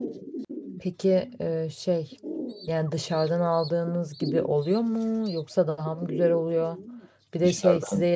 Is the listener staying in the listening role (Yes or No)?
Yes